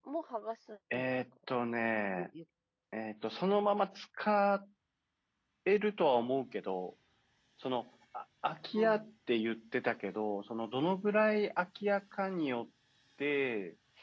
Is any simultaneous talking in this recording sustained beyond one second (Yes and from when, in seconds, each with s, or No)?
No